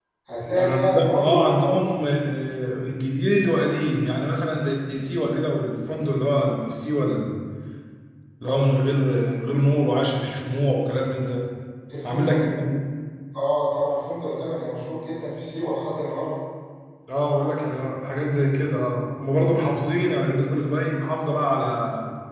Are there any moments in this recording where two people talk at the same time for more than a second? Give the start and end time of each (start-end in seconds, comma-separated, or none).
0.6-1.9